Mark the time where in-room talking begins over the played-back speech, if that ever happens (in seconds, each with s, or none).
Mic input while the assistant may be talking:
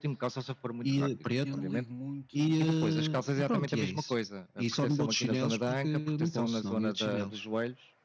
1.4 s